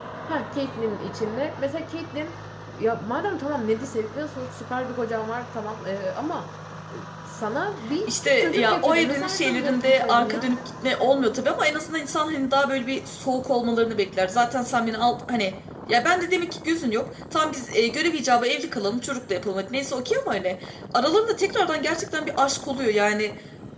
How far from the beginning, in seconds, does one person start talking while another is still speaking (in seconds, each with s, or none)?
8.1 s